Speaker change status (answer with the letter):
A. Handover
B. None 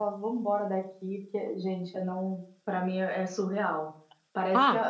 B